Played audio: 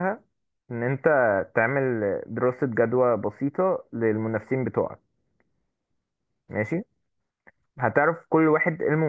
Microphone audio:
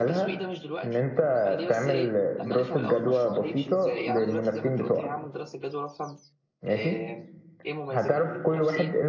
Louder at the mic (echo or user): echo